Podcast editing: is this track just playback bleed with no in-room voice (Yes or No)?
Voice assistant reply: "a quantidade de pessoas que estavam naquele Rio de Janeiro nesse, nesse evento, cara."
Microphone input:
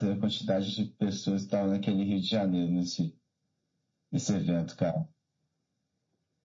Yes